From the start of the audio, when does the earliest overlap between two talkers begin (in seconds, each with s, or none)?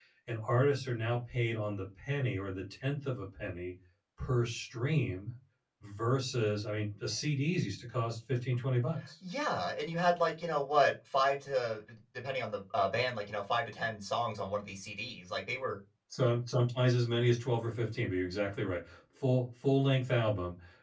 none